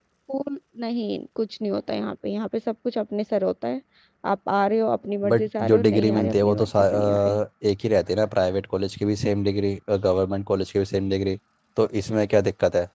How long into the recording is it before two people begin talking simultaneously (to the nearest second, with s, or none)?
5 s